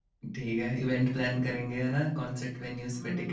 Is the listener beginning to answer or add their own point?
Yes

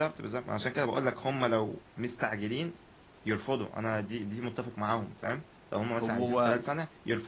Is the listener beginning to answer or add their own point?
No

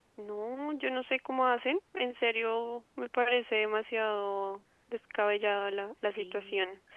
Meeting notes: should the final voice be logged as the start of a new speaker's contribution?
Yes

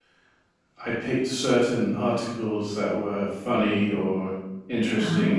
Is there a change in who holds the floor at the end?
No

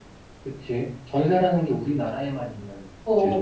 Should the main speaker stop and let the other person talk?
Yes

